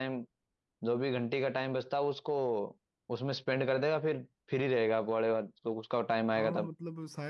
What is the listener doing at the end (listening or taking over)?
taking over